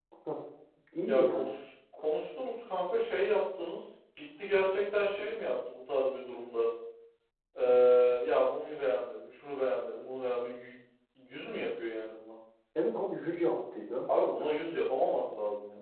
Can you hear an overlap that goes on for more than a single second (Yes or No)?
No